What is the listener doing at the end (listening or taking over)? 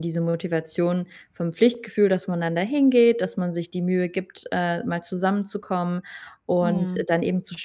listening